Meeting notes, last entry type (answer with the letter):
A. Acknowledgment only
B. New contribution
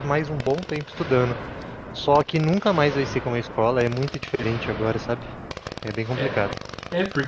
B